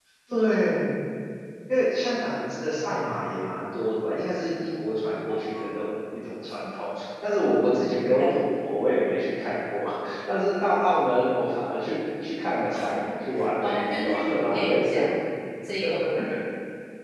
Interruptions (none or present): present